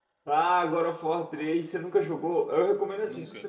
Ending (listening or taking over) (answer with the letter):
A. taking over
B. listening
B